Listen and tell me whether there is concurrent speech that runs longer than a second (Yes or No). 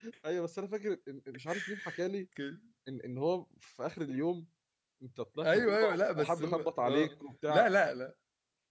Yes